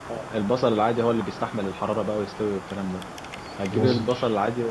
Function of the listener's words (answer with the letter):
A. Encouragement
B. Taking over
A